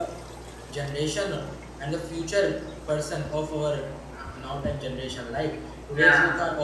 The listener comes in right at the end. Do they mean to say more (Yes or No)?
No